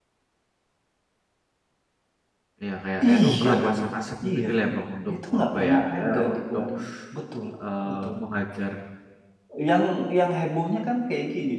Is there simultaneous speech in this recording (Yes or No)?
Yes